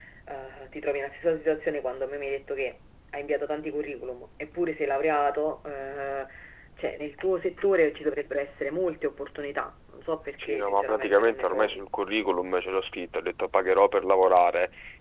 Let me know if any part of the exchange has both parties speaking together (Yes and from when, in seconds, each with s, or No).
Yes, from 10.4 s